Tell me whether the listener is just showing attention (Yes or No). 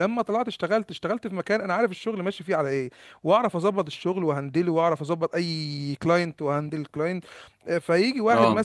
Yes